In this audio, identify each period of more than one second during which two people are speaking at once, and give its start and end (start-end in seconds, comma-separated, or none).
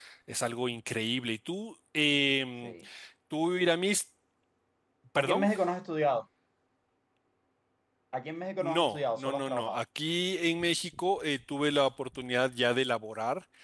8.6-9.8